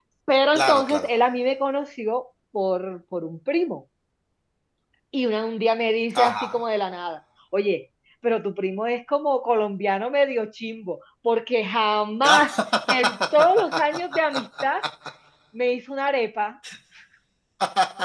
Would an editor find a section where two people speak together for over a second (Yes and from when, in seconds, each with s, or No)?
No